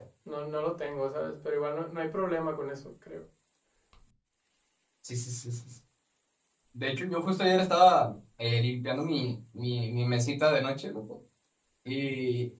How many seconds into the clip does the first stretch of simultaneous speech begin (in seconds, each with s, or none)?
none